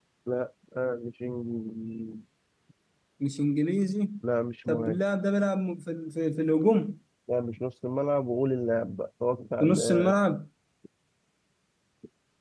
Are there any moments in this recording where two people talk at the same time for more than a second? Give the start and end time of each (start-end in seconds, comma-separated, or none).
none